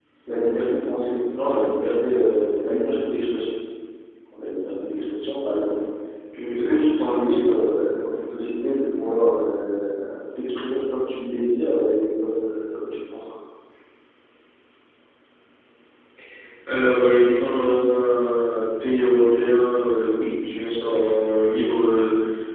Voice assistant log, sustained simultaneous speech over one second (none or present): none